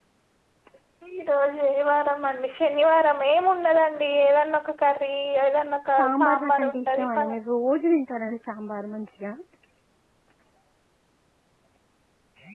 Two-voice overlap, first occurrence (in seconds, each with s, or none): 6.0 s